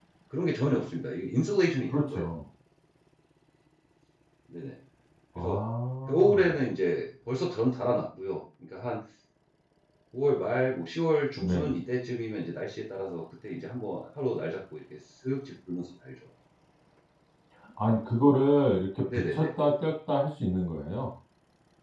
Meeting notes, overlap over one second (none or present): none